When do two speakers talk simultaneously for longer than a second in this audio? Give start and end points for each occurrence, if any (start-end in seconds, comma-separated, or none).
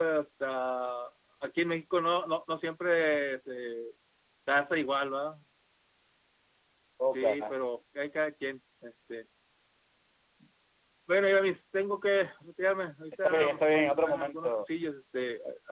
13.2-14.7